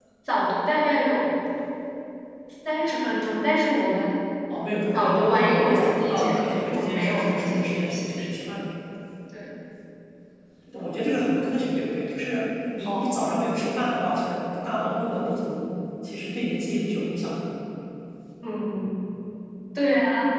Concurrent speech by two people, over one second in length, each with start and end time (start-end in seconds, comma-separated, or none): 4.9-8.3